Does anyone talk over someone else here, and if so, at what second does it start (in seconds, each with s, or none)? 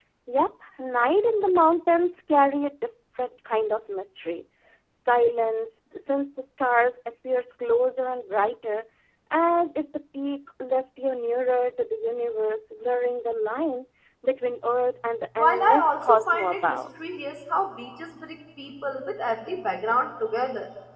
15.4 s